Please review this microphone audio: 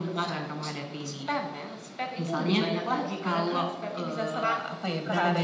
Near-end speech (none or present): none